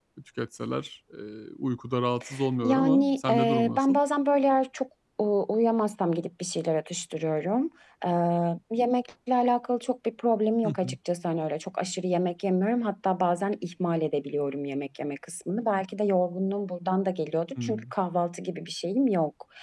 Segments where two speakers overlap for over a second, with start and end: 2.6-4.0

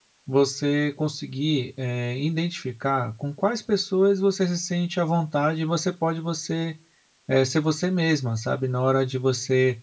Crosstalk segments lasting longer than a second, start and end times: none

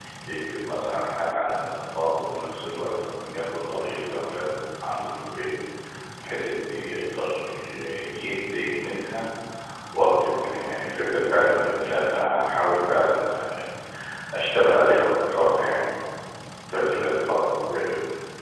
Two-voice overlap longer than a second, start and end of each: none

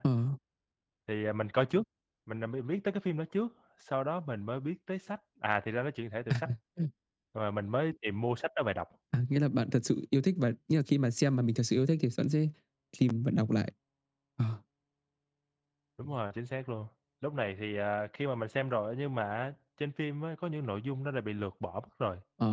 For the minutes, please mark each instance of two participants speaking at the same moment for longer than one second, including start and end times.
none

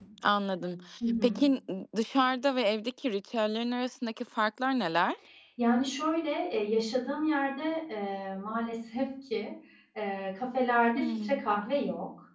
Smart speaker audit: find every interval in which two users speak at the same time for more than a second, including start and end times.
none

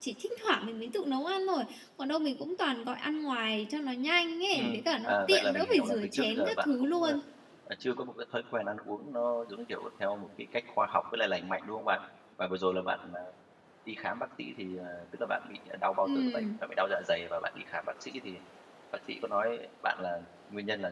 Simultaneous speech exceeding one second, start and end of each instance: 4.5-7.1

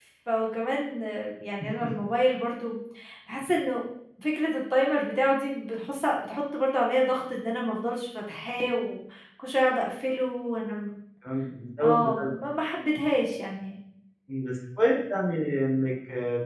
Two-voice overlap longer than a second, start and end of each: none

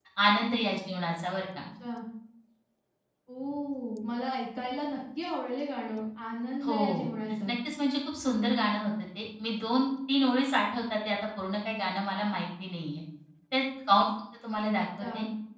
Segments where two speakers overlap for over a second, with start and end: none

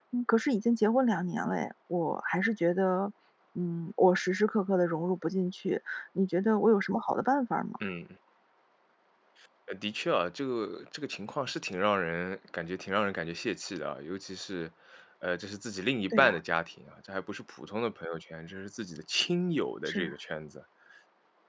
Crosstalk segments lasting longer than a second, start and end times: none

